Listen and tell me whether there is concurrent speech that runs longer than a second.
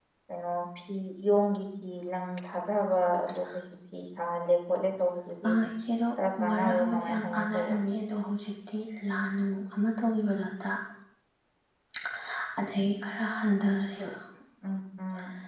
Yes, from 6.5 s

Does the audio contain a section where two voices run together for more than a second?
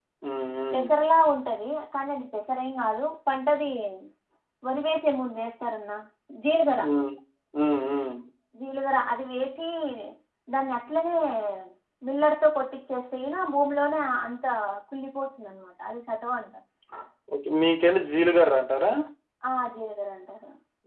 No

